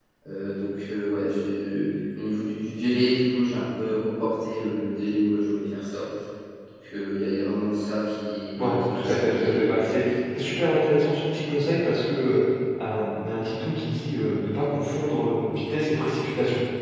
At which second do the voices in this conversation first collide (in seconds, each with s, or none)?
8.6 s